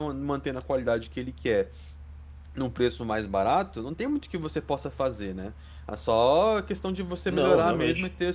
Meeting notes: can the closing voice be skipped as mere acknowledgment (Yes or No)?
Yes